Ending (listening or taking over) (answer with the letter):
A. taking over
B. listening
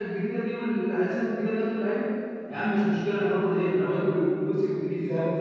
A